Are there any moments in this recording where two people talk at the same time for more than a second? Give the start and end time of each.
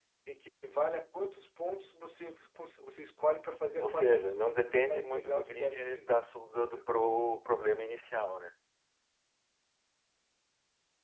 3.8-6.8

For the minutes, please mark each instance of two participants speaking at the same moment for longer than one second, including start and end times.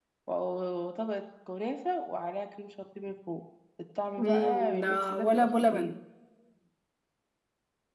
4.2-5.9

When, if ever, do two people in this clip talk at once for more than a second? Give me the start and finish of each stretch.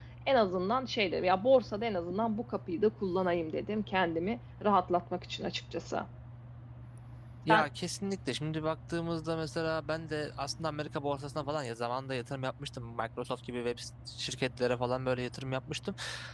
none

